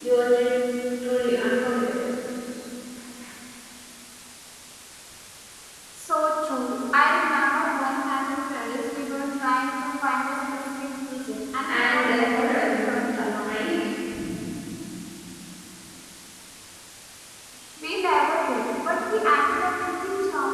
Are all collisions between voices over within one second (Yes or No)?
No